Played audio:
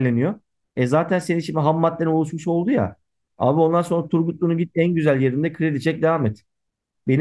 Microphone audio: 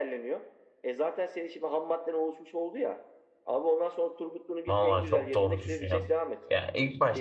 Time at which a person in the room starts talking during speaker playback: 4.7 s

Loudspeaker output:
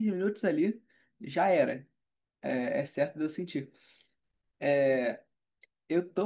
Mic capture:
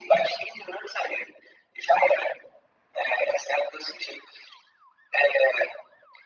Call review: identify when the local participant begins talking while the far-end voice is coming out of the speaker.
none

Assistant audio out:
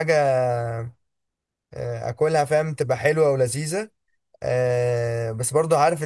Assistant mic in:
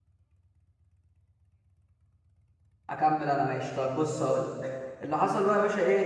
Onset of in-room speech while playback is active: 2.9 s

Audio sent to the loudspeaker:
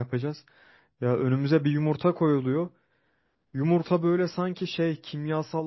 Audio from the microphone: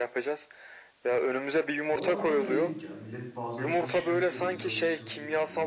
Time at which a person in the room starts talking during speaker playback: 1.9 s

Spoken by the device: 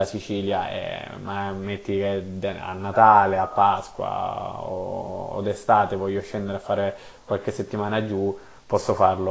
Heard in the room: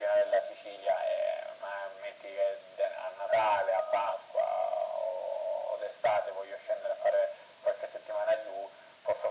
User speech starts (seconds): none

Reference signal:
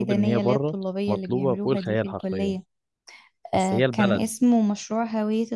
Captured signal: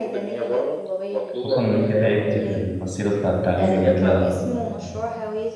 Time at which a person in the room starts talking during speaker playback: 1.3 s

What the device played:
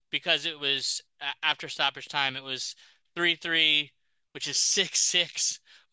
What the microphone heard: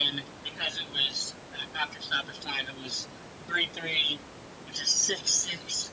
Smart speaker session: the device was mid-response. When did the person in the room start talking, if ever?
none

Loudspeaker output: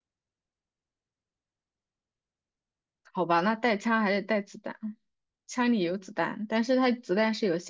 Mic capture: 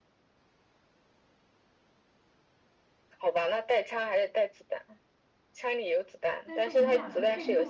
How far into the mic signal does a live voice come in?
6.4 s

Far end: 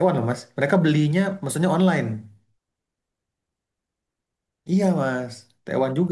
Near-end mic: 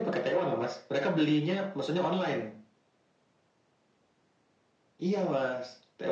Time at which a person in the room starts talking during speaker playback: none

